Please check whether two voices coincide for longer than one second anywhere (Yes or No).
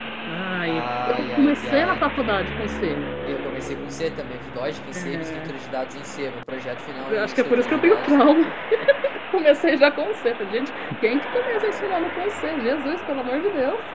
Yes